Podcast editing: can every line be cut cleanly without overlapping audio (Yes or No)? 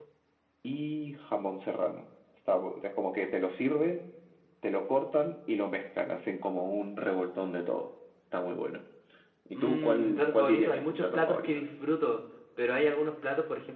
No